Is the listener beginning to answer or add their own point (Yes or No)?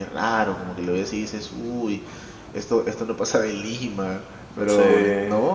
No